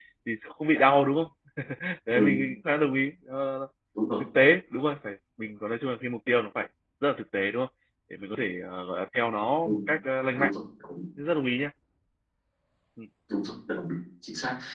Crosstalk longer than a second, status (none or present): none